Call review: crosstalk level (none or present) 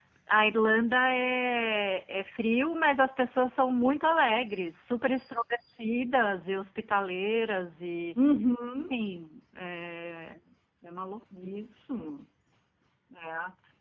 none